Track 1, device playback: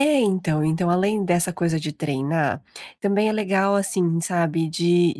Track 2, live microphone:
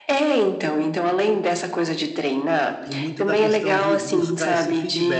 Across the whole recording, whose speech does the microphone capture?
both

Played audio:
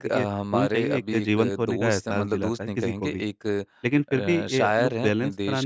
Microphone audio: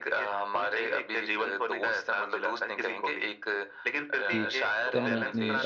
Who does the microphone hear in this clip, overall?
both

